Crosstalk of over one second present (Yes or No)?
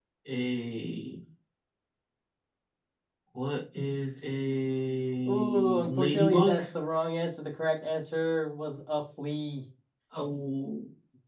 Yes